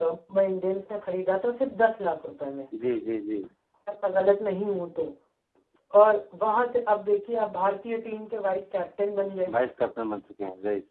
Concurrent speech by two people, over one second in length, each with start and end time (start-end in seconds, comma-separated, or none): none